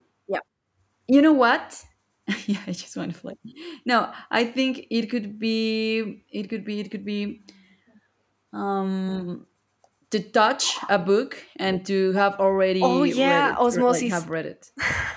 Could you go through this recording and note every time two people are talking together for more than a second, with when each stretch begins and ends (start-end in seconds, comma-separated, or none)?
12.8-14.2